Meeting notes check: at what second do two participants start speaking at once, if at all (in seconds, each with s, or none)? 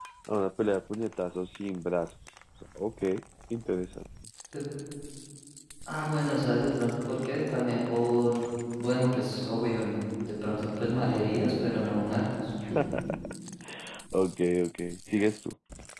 none